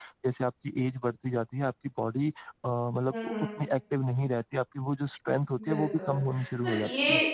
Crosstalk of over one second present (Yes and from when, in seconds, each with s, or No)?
No